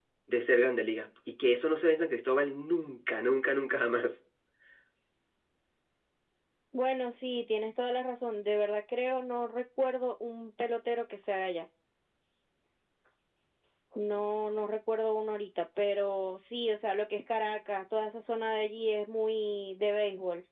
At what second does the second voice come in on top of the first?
none

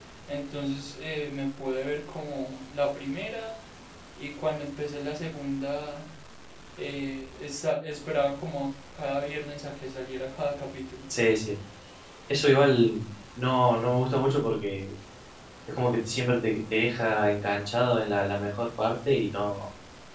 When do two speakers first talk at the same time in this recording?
none

